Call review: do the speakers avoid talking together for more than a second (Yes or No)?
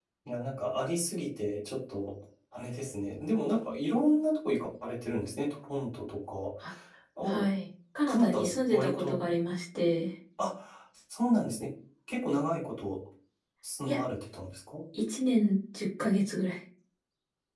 No